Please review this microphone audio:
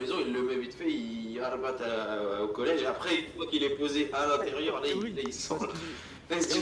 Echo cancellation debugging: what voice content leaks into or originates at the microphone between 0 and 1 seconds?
echo only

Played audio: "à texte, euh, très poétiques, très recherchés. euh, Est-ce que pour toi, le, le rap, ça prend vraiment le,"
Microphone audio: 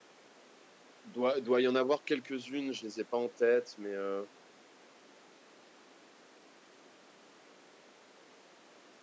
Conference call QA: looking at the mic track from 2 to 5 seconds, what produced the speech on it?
user only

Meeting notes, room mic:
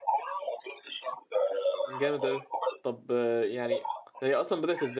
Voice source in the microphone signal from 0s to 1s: echo only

